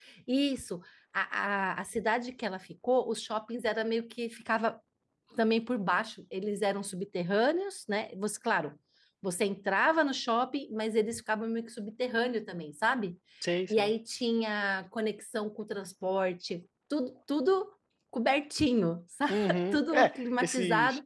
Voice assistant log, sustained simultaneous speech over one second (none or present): present